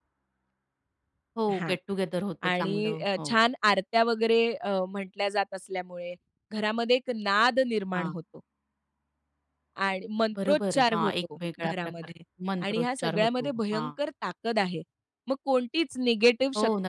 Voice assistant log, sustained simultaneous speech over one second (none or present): present